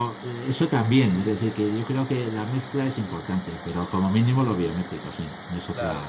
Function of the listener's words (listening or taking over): taking over